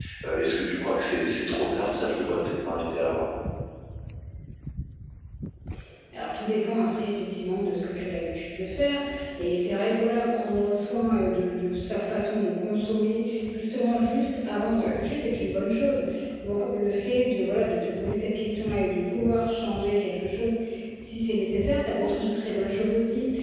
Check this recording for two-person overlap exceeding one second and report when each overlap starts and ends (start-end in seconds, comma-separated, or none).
none